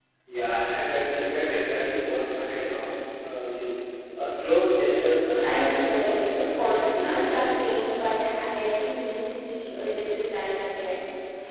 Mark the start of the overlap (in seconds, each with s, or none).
5.4 s